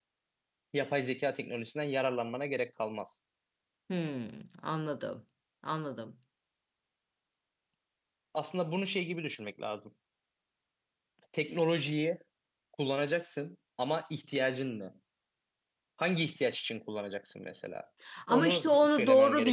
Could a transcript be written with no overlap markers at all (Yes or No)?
No